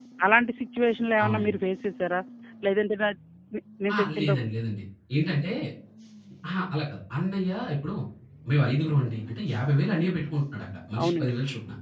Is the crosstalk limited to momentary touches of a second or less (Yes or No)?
Yes